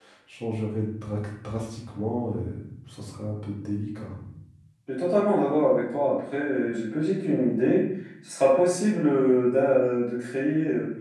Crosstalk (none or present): none